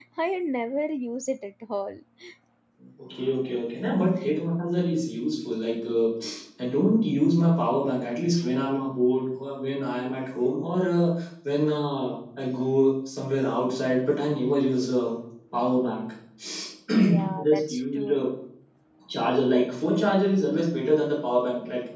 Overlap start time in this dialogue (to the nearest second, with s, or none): 17 s